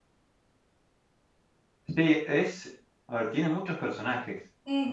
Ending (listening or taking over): taking over